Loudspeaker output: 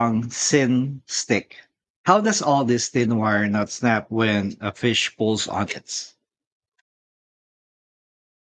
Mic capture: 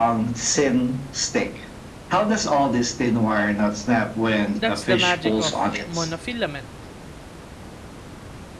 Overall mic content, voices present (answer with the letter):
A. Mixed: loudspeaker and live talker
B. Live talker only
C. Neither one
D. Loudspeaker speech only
A